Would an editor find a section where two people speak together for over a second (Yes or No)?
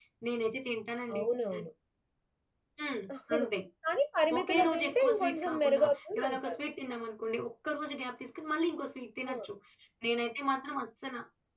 Yes